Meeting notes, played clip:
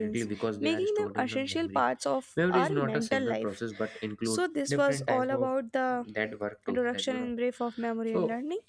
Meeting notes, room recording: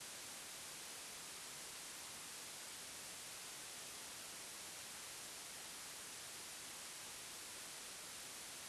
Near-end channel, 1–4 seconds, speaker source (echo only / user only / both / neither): neither